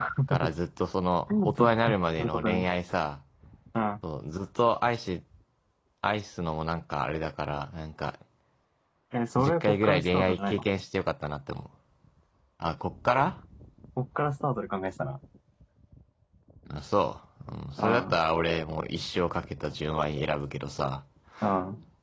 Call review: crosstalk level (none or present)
present